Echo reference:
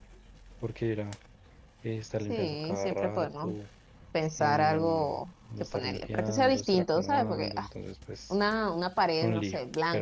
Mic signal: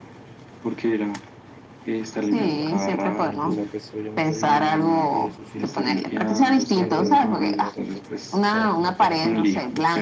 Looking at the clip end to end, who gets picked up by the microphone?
both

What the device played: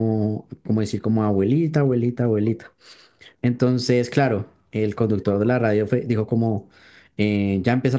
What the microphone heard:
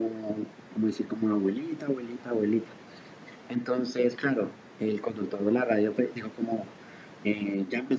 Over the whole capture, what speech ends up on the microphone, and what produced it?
echo only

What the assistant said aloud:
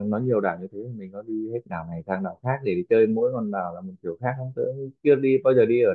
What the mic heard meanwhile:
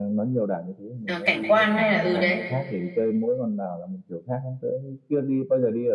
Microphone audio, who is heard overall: both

